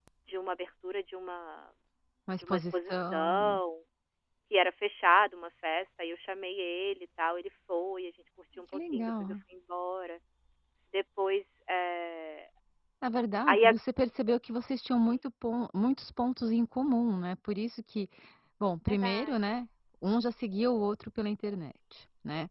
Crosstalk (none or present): present